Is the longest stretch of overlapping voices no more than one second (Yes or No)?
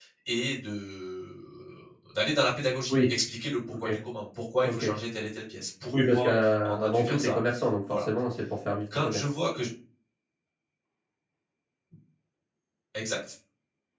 No